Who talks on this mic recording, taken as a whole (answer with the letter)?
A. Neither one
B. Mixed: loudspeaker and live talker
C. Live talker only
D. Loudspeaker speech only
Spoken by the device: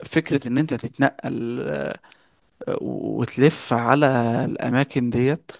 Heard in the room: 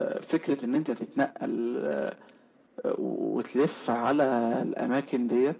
D